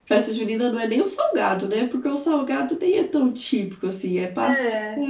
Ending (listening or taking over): listening